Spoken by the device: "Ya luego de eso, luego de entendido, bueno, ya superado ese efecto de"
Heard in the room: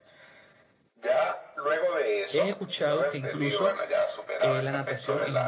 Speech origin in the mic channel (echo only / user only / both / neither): both